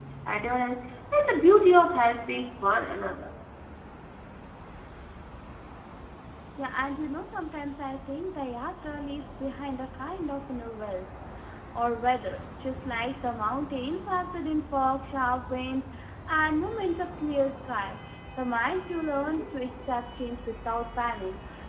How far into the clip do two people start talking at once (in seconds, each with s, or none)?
none